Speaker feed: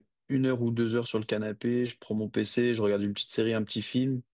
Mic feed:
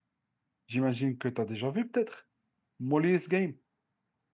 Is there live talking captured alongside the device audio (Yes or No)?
Yes